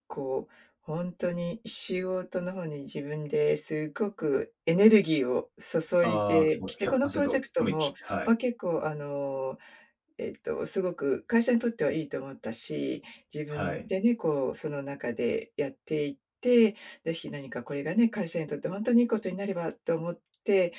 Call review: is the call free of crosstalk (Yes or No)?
No